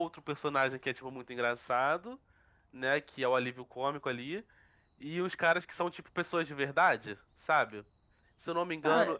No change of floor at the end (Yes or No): Yes